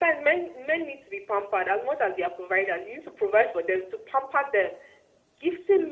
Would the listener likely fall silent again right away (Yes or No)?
Yes